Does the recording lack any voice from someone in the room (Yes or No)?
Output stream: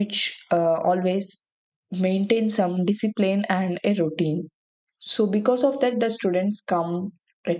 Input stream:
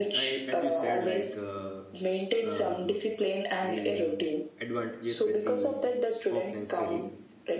No